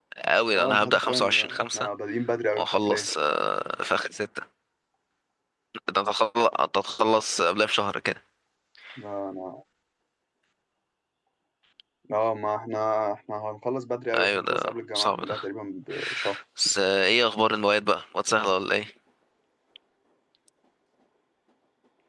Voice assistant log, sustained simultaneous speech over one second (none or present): present